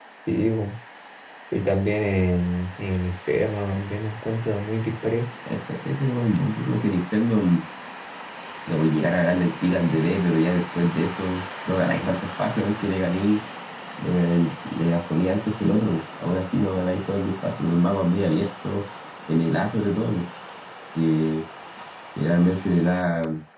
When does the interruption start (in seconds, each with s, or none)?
none